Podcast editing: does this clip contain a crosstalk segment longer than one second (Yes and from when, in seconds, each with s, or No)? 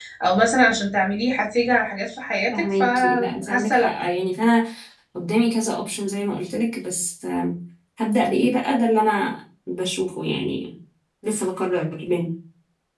Yes, from 2.5 s